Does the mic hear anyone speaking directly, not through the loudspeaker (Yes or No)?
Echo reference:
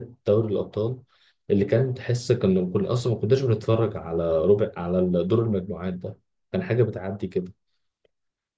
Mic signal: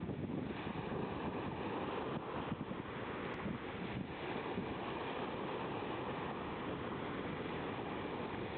No